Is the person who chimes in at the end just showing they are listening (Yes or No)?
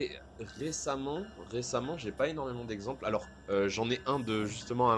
Yes